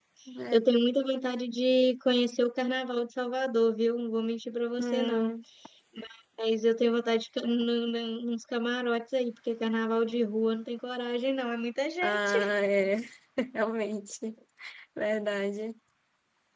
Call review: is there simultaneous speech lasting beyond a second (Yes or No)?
No